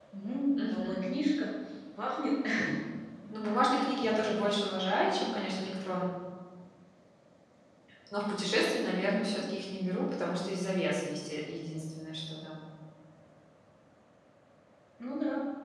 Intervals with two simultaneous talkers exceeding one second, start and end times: none

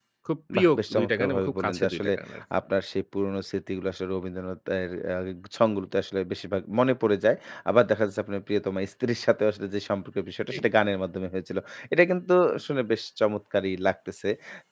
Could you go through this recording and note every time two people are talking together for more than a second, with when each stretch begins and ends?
0.6-2.1

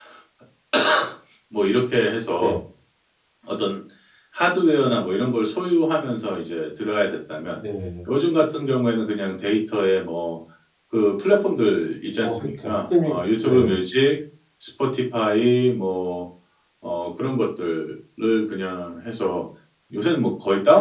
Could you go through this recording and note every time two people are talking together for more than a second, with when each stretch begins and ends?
12.2-13.7

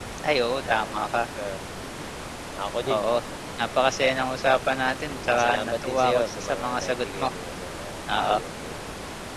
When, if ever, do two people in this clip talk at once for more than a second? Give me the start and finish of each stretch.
5.2-7.3

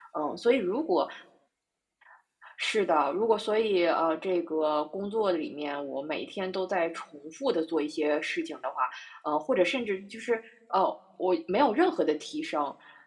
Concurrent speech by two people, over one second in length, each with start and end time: none

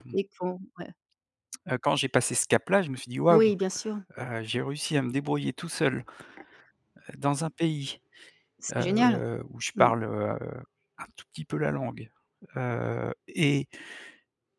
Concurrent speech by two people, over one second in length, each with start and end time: none

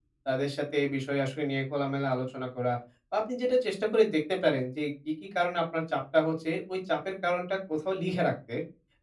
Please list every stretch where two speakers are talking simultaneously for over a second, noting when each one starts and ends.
none

